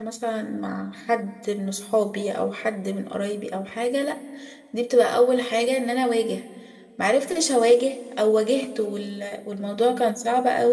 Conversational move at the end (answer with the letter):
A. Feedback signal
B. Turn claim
A